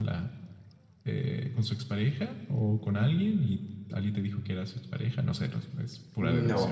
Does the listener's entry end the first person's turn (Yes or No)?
Yes